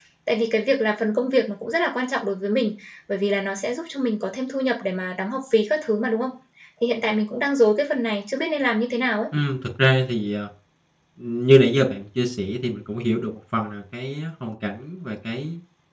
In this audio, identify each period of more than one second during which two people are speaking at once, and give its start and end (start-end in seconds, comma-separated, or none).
none